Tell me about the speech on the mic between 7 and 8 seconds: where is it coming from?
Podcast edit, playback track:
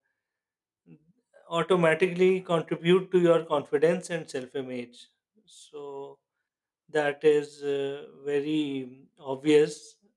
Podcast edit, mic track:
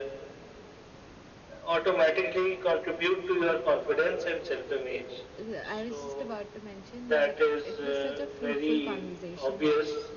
both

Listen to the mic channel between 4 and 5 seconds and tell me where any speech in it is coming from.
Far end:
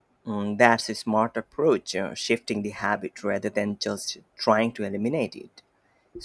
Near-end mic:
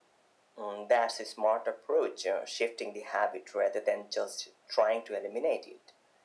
echo only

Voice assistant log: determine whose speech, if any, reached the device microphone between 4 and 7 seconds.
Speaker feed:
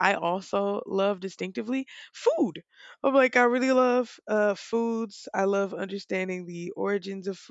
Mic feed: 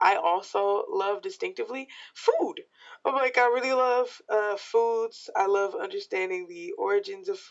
echo only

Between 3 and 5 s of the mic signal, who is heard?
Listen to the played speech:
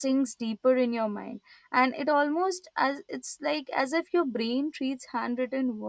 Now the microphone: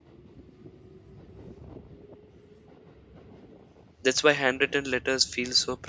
user only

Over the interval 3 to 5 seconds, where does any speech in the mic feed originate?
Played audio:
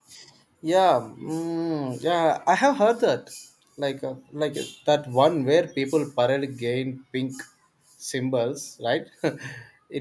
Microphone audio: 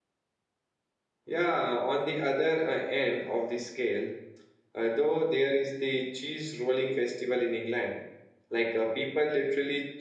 user only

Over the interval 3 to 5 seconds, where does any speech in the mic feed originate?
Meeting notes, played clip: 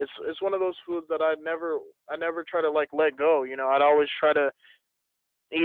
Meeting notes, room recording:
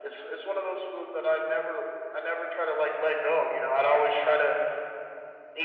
echo only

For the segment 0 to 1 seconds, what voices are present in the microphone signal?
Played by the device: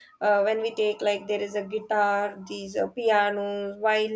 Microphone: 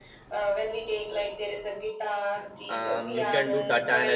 echo only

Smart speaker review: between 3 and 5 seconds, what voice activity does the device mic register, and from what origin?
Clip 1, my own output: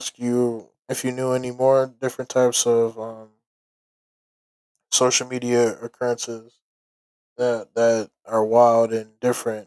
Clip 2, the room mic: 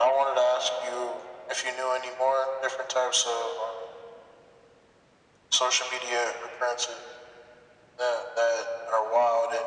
echo only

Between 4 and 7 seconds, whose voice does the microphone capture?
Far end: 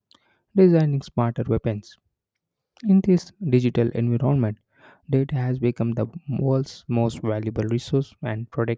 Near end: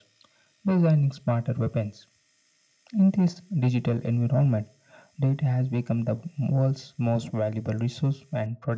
echo only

